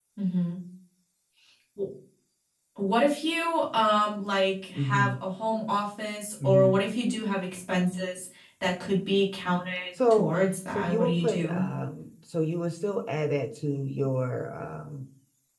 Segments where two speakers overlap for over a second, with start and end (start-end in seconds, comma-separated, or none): 10.1-11.6